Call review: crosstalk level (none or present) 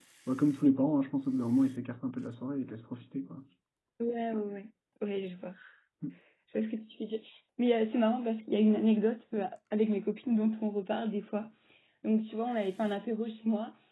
none